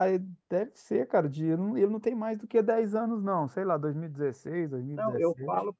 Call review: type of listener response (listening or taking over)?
taking over